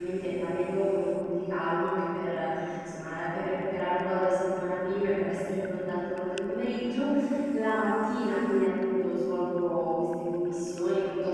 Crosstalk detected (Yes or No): No